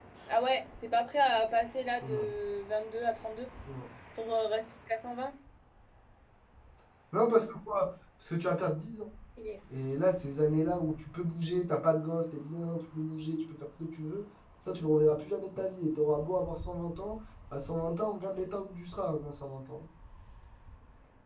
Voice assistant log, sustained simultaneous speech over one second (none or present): none